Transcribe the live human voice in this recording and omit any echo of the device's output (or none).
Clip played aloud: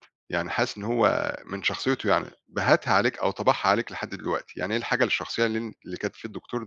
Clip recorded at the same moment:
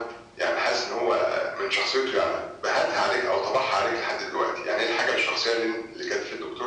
none